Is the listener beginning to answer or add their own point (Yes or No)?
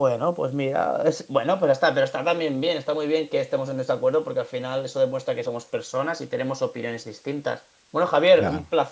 No